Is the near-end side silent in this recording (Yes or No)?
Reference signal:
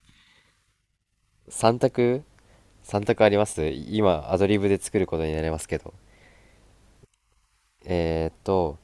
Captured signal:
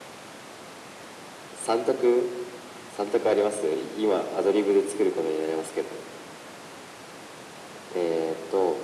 Yes